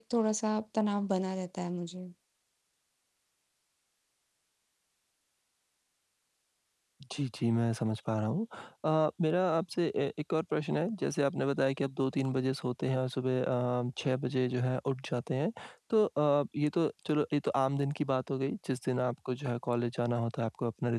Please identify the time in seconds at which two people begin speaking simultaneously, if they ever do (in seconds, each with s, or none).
none